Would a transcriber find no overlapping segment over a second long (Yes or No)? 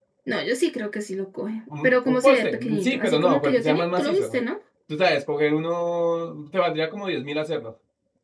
No